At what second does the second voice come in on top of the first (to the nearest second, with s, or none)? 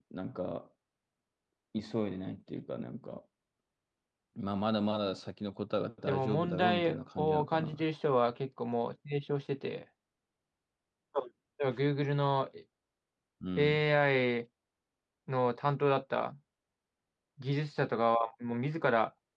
6 s